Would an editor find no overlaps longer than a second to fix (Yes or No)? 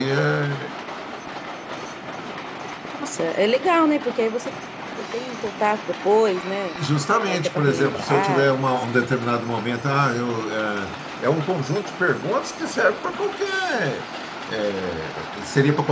No